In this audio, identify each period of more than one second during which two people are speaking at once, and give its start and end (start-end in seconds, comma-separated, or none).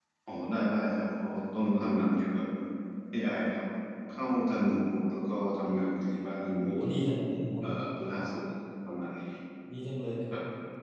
none